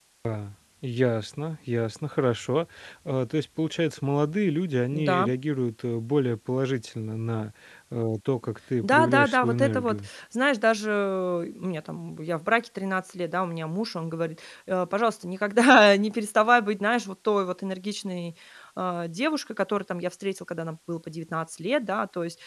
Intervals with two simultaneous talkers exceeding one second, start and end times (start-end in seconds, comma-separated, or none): 8.8-10.1